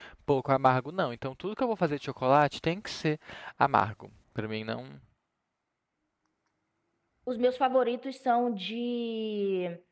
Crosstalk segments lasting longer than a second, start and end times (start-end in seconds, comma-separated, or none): none